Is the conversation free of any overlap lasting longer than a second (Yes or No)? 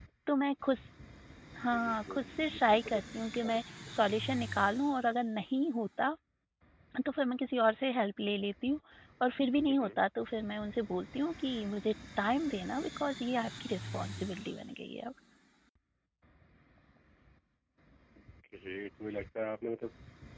No